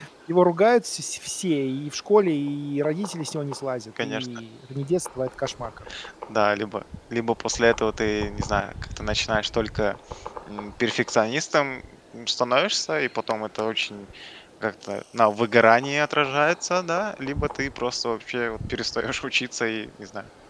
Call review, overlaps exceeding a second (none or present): none